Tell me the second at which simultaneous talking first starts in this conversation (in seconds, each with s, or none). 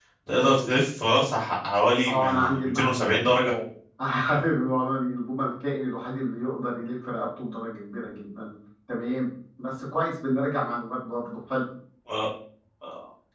2.0 s